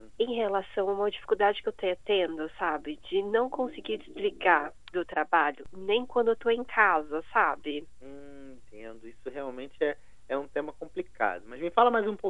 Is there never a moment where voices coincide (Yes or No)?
Yes